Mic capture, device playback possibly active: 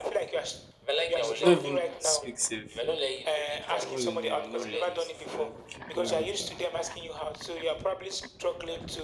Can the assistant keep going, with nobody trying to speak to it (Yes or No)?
No